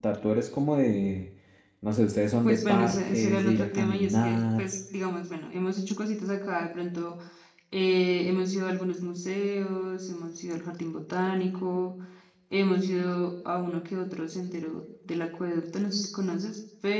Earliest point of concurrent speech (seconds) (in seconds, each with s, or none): 2.4 s